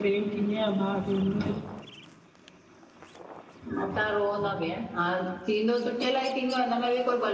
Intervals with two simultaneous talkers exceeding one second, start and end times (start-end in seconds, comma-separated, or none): none